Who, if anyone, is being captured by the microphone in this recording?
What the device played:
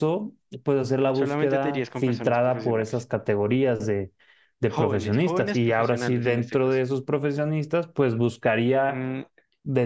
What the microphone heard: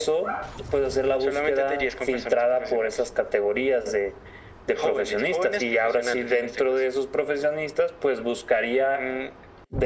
echo only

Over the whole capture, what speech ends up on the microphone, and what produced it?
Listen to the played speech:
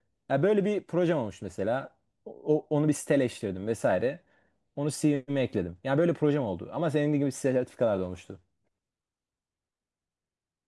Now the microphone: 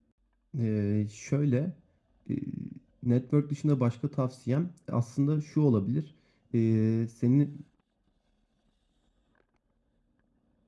user only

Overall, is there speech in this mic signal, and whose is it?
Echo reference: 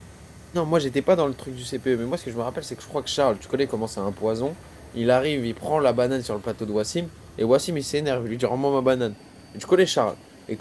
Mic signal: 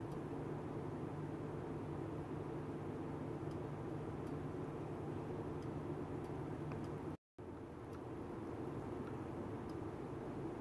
neither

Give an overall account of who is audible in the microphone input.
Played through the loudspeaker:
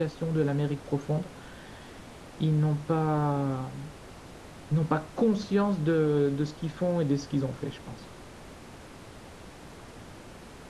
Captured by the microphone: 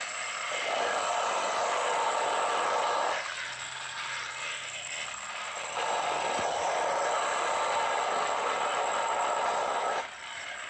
neither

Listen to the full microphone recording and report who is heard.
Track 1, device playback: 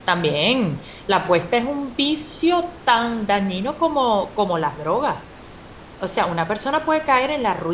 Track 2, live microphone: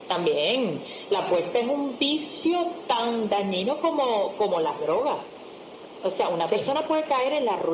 both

